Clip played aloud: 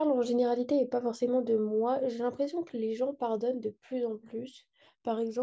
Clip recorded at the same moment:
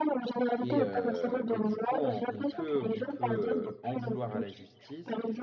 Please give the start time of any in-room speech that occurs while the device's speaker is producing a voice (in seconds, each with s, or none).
0.6 s